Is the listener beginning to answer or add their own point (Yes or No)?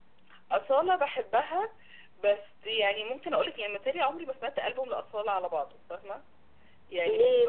Yes